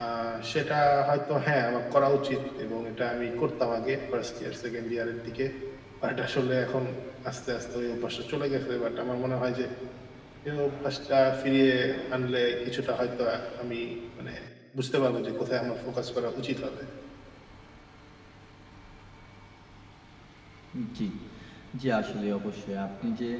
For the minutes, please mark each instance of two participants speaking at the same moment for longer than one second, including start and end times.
none

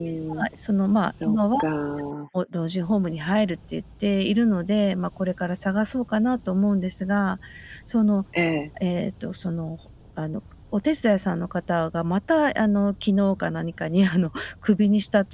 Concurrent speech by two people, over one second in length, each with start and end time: none

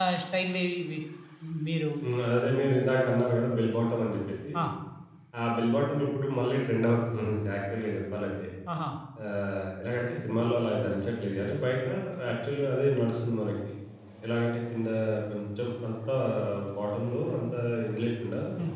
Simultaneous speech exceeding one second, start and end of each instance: none

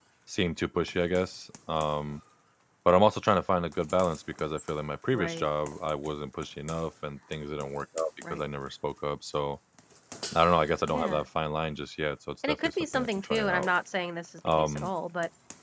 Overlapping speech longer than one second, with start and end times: 12.5-13.7

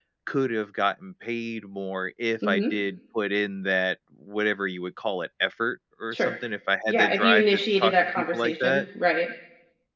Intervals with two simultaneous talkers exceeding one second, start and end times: 6.9-8.8

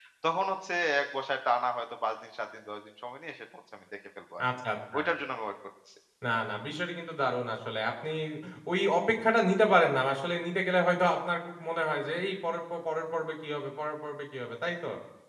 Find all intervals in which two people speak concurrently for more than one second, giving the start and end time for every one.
none

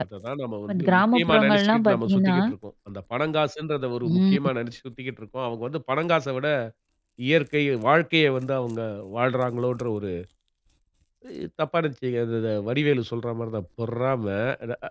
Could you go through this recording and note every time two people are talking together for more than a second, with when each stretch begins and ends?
0.7-2.4

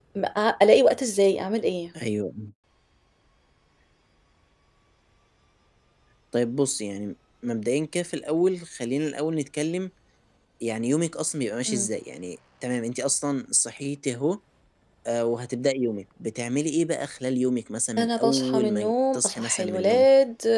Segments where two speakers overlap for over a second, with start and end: 18.0-20.0

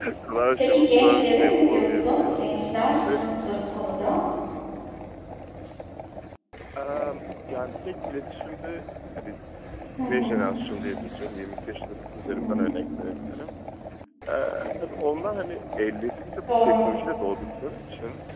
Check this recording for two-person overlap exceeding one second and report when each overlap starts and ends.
0.6-2.5

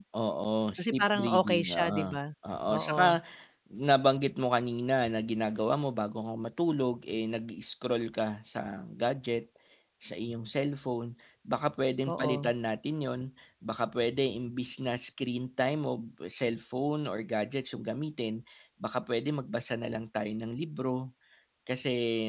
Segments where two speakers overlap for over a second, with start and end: 0.8-2.2

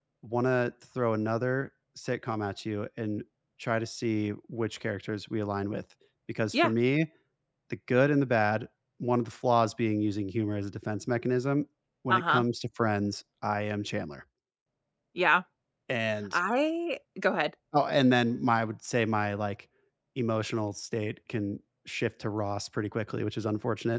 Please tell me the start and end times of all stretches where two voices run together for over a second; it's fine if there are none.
none

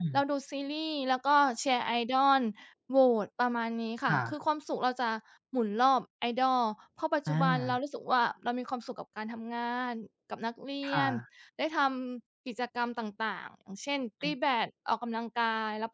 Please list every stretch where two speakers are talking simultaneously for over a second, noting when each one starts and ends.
none

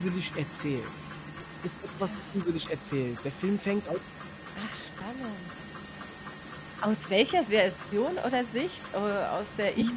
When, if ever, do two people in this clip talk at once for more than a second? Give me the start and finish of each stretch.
none

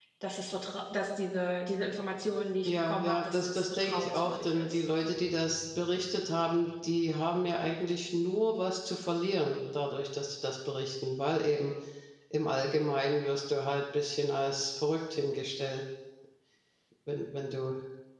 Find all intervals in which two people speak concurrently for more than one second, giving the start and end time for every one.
2.6-4.8

